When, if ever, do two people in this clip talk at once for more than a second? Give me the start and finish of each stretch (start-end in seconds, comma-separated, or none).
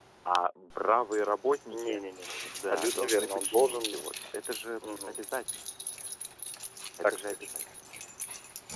2.5-4.0